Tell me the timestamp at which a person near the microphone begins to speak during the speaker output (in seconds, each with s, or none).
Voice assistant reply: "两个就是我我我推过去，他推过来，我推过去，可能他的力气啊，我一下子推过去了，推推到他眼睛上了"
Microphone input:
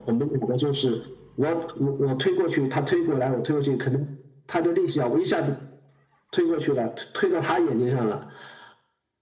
none